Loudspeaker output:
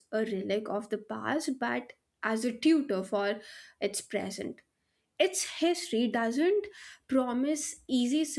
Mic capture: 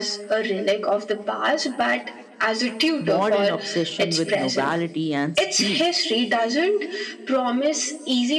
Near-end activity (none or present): present